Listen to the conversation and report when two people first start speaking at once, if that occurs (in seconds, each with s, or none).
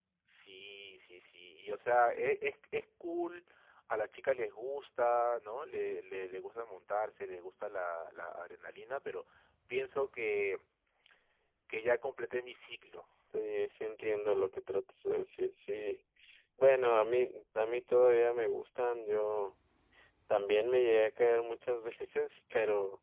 none